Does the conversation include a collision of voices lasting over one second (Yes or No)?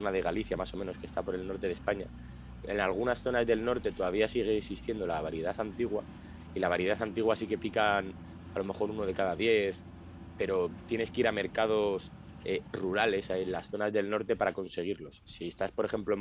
No